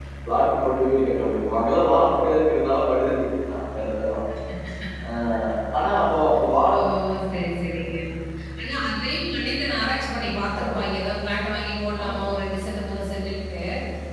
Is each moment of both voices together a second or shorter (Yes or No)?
Yes